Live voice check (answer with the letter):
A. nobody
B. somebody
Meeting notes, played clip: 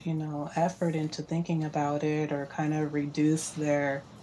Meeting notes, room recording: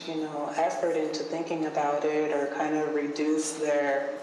A